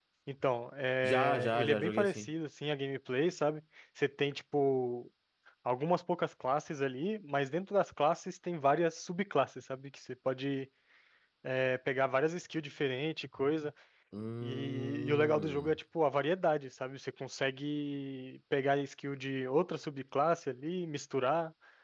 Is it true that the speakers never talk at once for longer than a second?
No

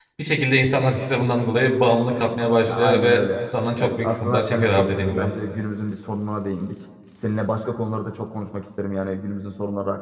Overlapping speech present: Yes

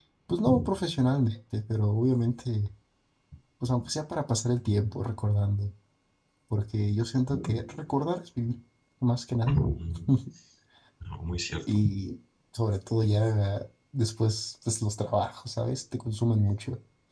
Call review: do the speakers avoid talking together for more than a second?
Yes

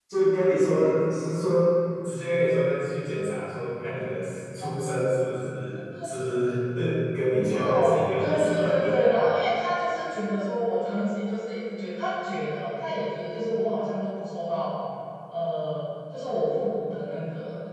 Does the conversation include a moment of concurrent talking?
Yes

